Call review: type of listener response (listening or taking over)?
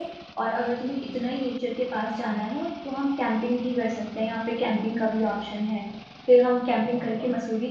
listening